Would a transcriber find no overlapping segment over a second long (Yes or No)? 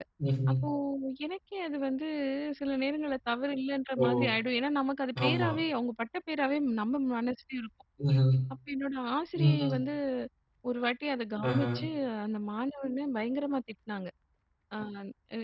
Yes